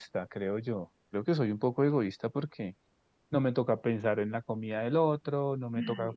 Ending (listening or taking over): listening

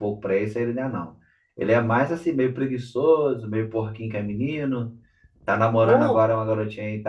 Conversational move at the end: listening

